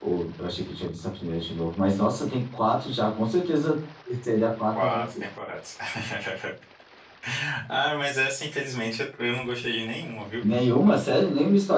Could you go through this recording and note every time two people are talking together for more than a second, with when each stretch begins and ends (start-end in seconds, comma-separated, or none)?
none